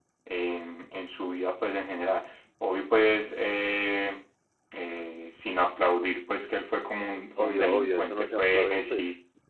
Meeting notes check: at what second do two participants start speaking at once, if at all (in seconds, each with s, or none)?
7.4 s